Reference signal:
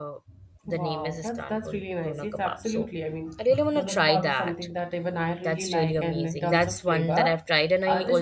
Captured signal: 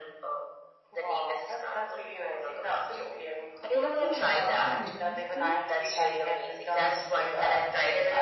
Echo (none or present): present